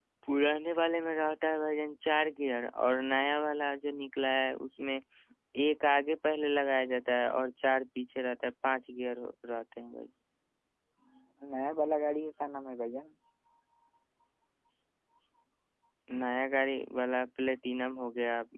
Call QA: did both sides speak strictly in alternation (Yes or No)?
Yes